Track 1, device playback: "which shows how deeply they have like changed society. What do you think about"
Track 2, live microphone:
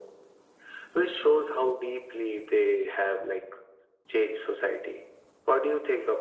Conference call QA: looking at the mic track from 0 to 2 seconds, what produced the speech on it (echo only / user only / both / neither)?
echo only